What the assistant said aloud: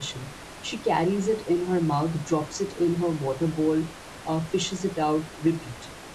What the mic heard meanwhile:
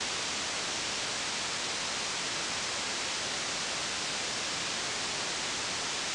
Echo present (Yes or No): No